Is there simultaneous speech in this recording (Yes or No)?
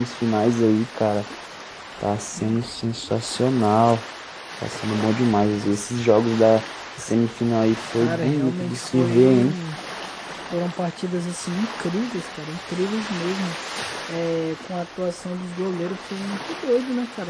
Yes